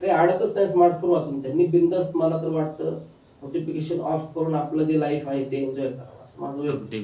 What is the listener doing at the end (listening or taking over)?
taking over